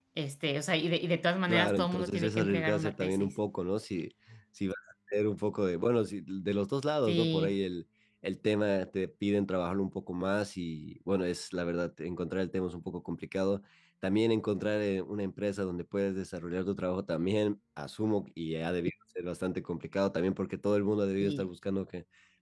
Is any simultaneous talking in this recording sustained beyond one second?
Yes, from 1.5 s

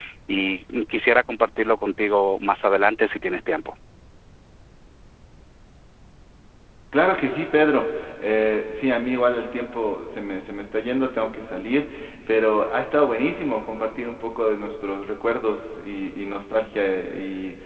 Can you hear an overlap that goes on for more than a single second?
No

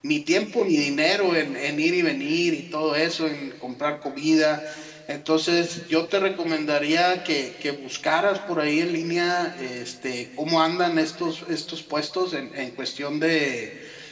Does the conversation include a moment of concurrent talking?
No

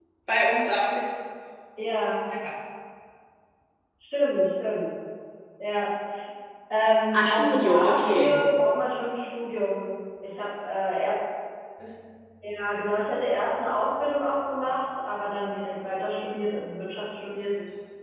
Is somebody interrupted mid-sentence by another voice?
Yes, from 7.1 s

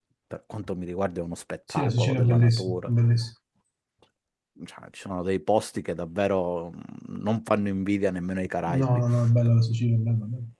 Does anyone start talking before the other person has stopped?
Yes, from 1.7 s

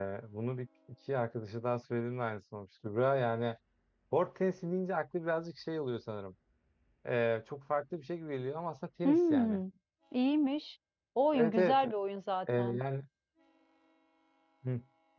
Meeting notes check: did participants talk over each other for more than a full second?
No

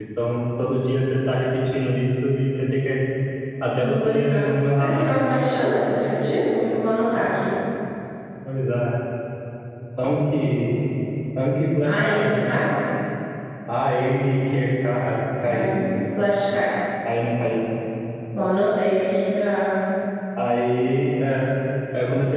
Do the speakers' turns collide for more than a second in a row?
Yes, from 3.9 s

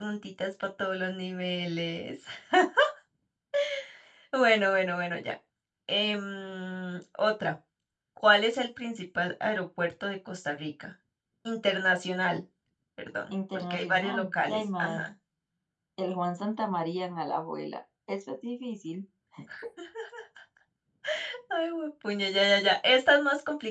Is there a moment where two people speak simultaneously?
Yes, from 13.3 s

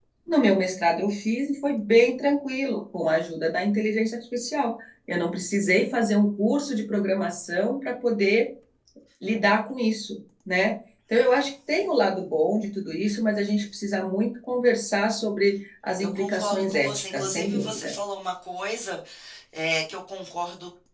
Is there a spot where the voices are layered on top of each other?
Yes, from 16.0 s

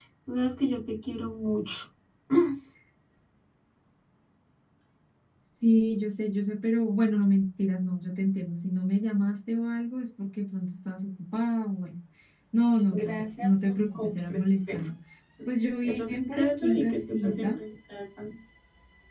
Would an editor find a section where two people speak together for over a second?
Yes, from 12.9 s

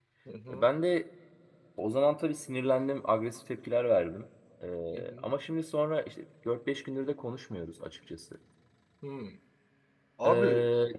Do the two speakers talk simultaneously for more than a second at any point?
No

